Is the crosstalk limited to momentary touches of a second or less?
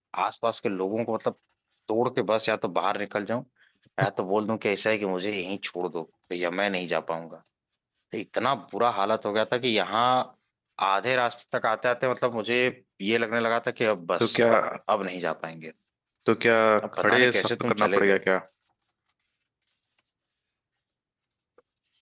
No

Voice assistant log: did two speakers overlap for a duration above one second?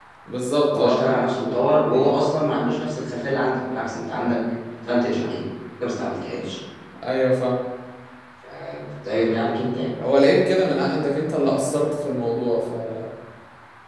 No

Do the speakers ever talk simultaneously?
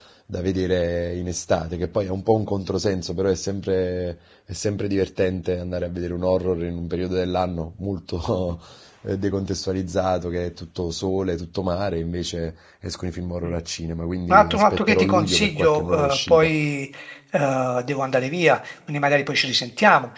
Yes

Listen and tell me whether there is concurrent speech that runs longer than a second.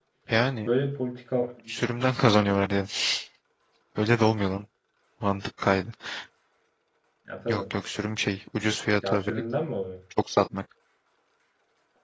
No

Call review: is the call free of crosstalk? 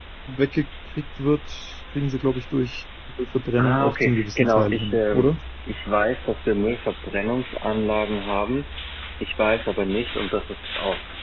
No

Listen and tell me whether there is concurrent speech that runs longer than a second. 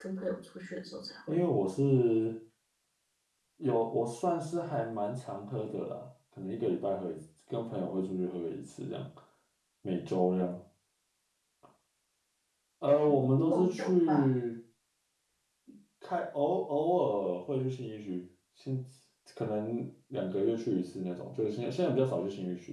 Yes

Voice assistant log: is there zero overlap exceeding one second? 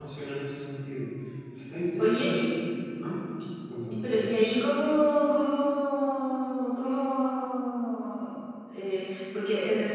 Yes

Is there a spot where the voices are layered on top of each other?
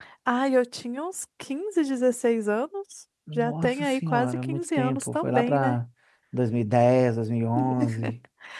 Yes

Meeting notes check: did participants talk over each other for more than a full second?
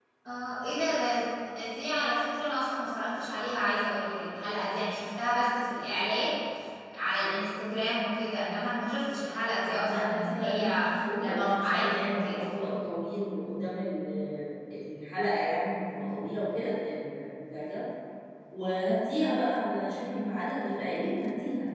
Yes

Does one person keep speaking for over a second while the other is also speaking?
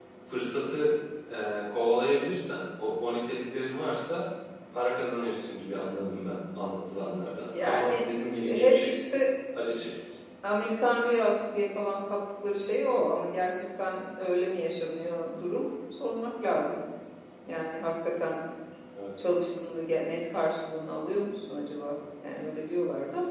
Yes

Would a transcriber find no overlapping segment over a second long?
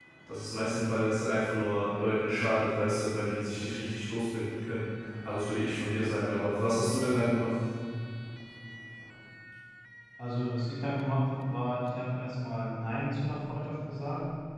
Yes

